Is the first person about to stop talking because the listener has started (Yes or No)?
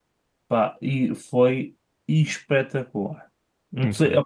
No